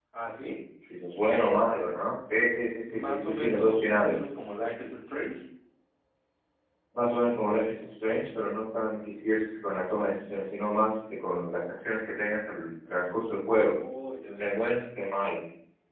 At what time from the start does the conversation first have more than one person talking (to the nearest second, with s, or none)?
3 s